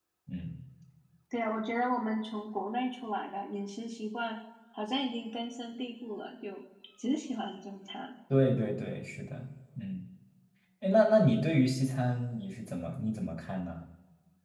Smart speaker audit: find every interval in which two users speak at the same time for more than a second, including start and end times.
none

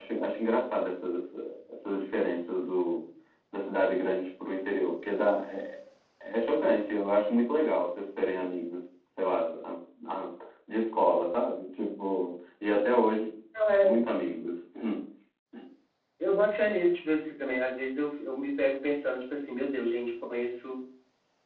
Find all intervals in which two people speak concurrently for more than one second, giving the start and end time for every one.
none

